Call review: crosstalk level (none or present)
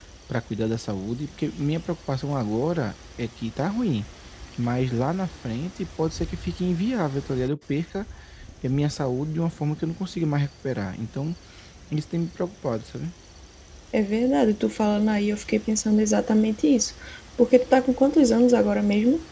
none